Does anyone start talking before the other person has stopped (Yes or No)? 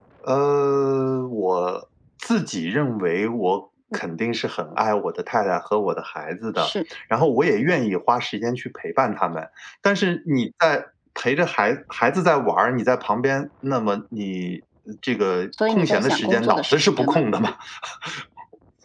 Yes